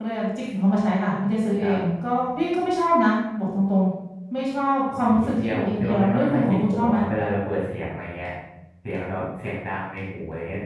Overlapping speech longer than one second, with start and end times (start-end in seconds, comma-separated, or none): 5.3-7.0